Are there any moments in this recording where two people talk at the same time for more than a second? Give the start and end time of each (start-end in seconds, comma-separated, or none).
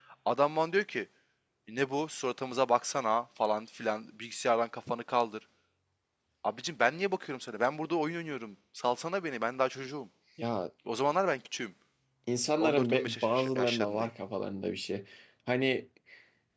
12.6-14.1